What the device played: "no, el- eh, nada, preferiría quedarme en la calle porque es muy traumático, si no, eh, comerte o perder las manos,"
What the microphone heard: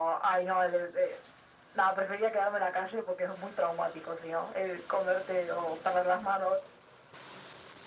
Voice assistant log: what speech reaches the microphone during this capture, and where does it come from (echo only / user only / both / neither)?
echo only